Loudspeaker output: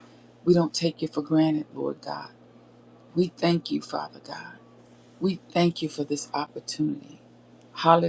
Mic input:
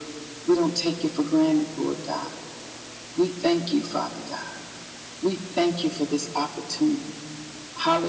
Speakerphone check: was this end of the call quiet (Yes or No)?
Yes